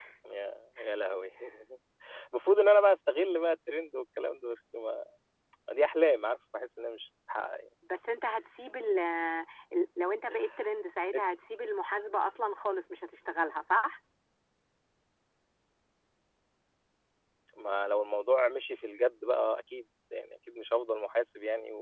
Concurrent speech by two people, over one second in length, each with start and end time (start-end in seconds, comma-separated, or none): none